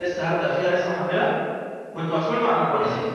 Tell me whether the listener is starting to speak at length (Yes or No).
No